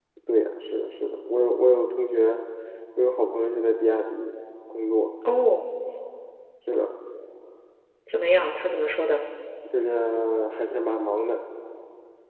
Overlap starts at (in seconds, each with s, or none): none